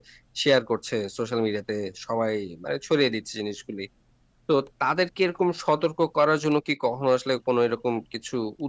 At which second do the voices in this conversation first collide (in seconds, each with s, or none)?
none